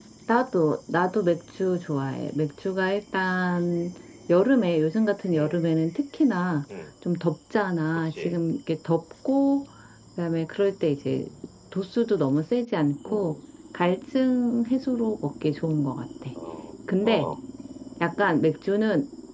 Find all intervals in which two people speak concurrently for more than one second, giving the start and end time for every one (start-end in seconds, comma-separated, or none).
none